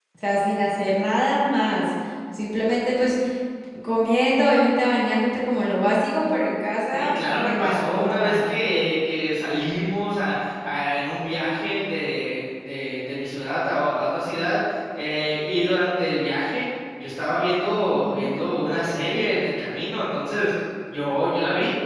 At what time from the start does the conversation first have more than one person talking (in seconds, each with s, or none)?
6.9 s